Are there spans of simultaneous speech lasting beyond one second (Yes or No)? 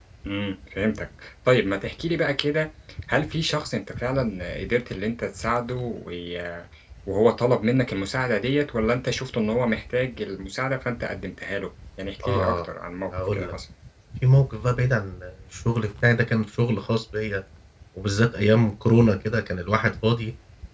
No